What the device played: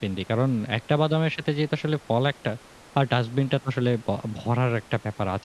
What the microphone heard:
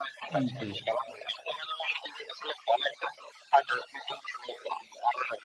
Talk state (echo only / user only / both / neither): both